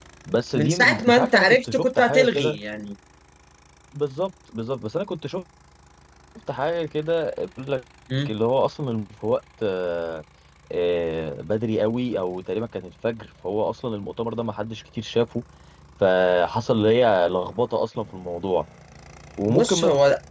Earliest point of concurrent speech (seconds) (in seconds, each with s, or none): 0.5 s